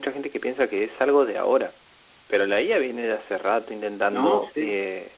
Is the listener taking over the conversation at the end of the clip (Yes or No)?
No